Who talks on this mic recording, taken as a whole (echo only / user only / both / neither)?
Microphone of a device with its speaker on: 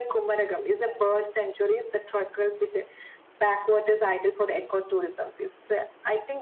echo only